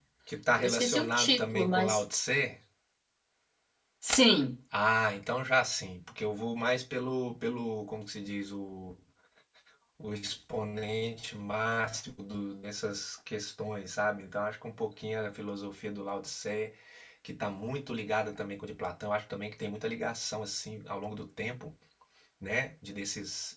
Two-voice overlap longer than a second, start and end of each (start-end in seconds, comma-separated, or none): 0.6-2.0